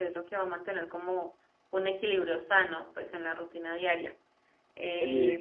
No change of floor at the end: No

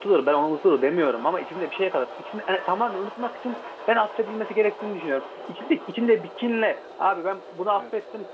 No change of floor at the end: Yes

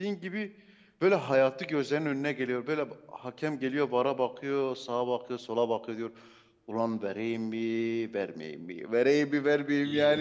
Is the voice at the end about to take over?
No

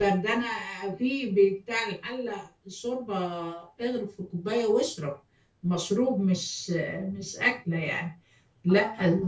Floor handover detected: No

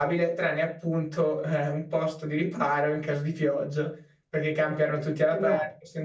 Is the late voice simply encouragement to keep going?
Yes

